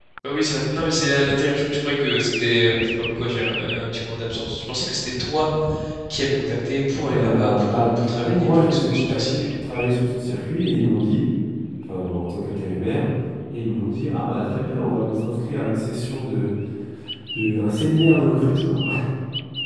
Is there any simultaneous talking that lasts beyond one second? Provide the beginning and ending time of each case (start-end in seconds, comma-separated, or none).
7.1-9.3